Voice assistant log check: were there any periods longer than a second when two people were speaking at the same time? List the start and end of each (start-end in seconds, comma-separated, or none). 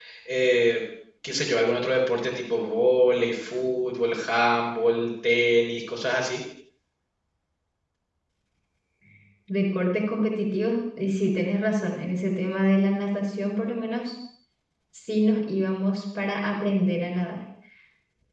none